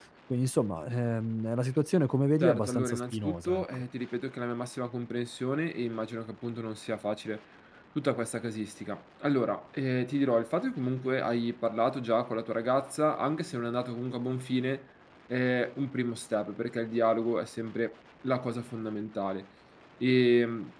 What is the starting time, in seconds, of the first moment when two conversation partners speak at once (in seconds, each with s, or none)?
2.4 s